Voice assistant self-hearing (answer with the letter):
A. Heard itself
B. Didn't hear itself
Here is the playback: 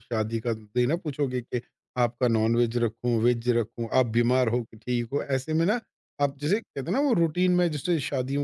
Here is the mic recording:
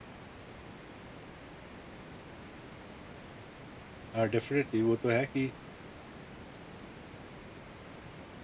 B